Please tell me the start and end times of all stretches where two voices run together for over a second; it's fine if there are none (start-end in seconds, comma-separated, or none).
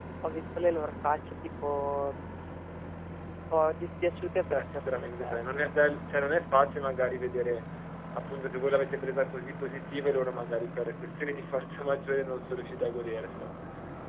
4.5-5.7